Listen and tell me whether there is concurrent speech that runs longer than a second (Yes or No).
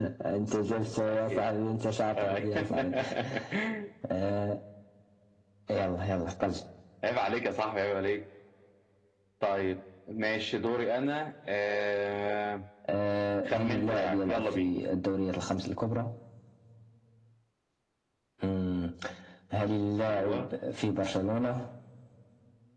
Yes